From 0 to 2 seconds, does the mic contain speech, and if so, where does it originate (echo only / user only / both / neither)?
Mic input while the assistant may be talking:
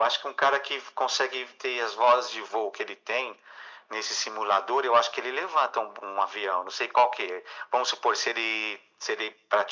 echo only